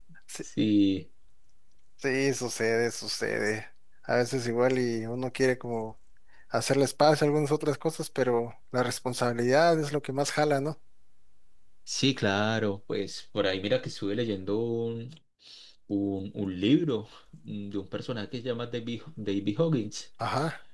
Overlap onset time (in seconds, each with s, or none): none